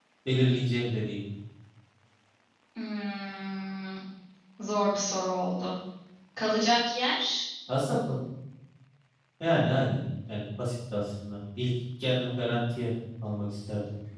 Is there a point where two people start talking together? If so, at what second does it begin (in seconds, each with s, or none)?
none